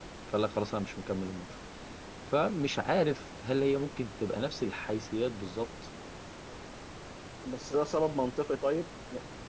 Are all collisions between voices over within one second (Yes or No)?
Yes